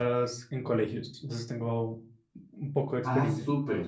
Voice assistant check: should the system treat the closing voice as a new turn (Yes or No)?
Yes